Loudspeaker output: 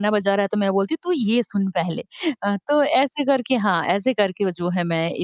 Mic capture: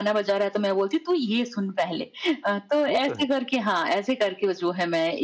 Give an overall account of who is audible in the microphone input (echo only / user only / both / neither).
both